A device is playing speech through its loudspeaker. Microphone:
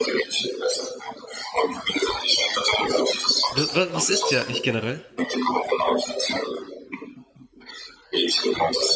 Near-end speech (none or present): present